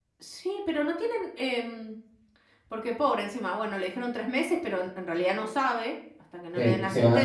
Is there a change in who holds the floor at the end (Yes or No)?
Yes